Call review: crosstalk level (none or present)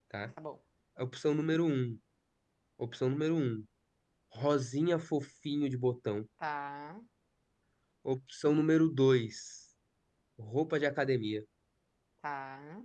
none